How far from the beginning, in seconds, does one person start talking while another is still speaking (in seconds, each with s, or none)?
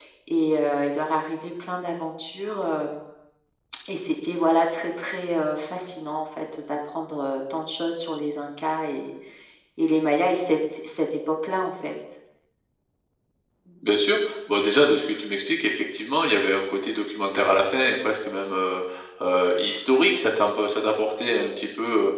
none